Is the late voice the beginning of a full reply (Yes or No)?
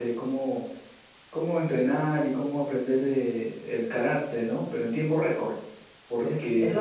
Yes